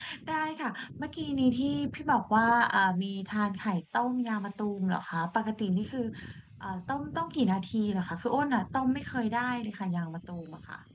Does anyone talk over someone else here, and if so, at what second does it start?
none

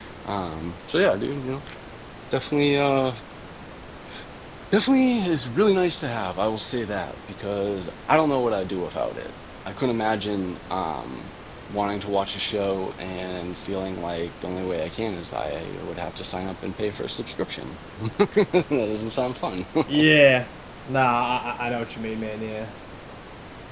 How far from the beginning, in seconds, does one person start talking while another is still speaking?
none

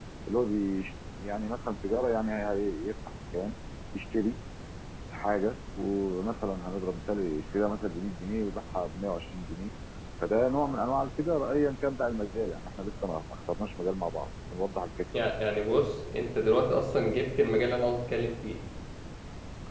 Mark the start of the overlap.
none

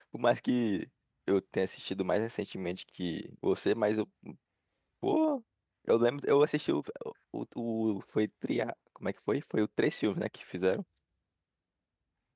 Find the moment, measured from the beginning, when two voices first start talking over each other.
none

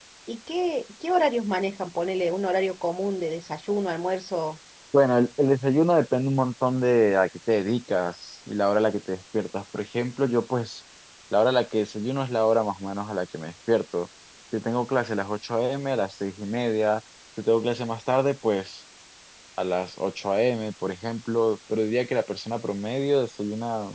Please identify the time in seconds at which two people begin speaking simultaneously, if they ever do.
none

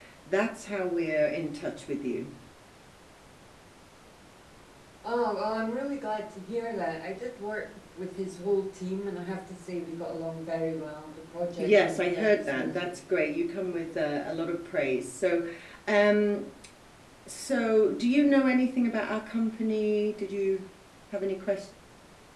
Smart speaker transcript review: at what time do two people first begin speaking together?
11.6 s

